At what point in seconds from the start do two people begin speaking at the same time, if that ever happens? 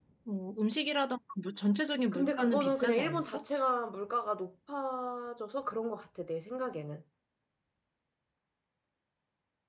2.1 s

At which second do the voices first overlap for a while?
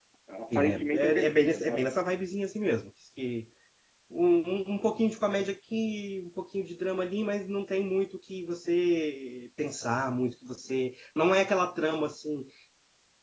0.5 s

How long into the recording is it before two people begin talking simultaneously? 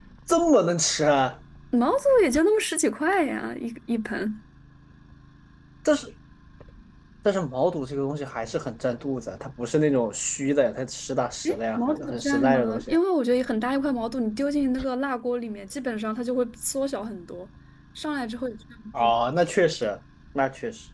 11.4 s

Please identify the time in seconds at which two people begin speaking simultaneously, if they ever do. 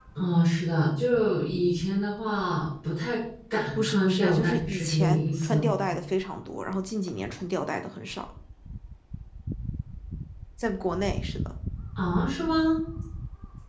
3.7 s

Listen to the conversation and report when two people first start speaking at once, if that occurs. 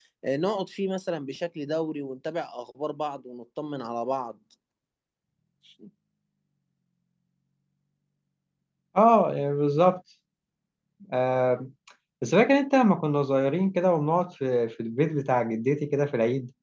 none

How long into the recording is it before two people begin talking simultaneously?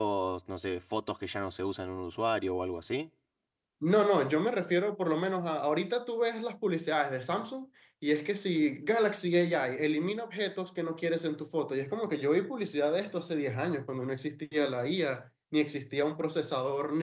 none

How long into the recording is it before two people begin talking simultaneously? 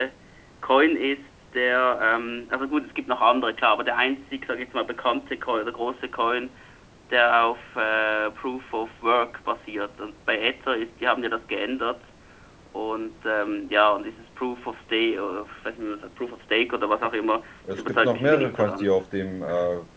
17.6 s

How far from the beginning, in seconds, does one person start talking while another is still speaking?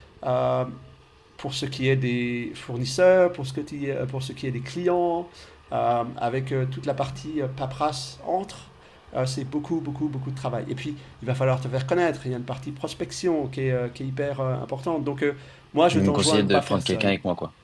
15.9 s

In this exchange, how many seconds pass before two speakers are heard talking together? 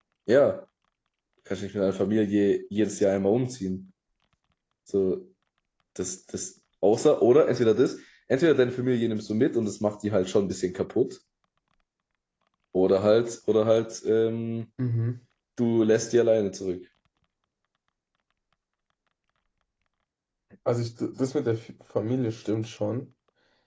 none

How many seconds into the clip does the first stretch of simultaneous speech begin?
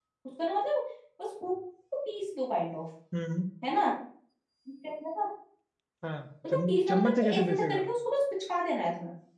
6.5 s

